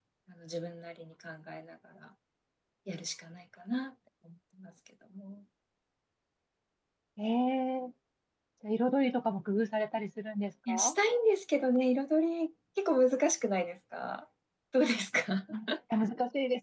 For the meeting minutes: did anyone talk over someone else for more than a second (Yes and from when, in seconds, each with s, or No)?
No